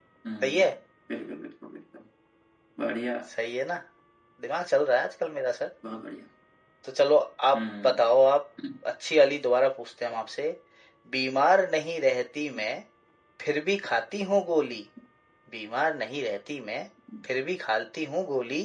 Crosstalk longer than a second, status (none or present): none